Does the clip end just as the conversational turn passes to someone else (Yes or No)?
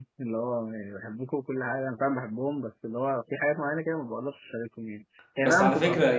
Yes